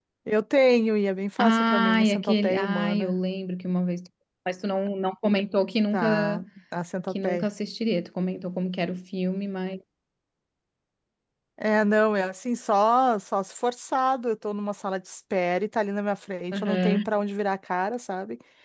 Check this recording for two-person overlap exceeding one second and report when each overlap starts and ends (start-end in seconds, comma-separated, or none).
1.4-3.1